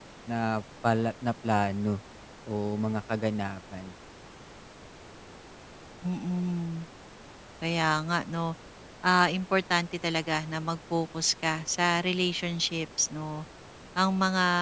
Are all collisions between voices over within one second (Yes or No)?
Yes